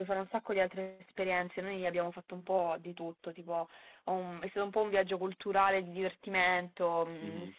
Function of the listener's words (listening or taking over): listening